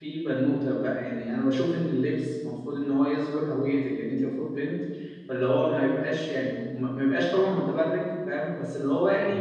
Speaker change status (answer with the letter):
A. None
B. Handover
A